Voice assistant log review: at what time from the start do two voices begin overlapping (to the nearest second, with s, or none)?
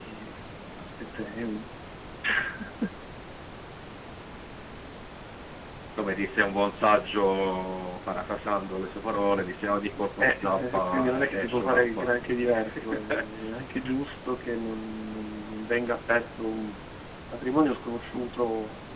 10 s